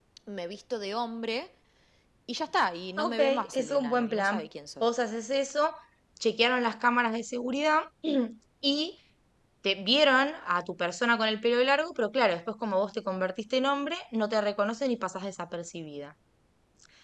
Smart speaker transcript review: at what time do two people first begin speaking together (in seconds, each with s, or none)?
3.0 s